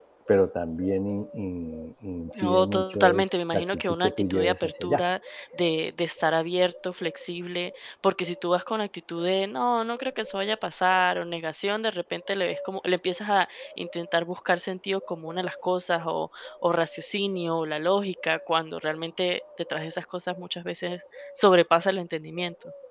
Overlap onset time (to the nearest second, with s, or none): 2 s